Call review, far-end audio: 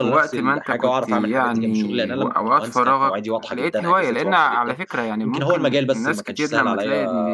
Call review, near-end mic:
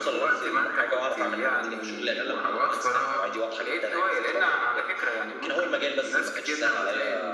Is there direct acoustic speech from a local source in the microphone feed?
No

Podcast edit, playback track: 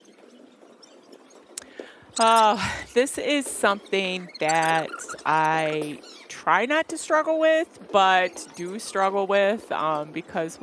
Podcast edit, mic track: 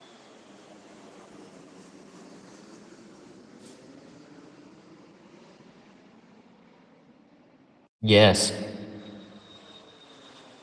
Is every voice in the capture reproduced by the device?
No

